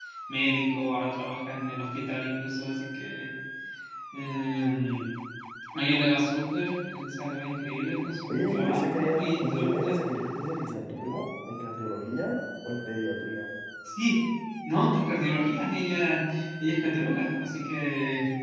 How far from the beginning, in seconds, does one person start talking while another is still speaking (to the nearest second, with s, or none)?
8 s